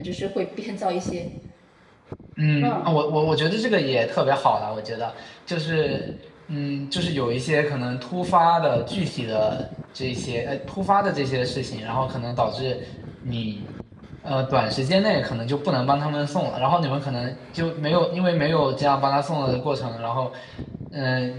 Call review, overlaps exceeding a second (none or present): none